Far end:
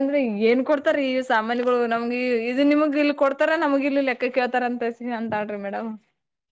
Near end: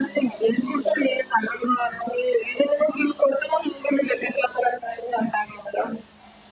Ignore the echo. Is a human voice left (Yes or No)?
No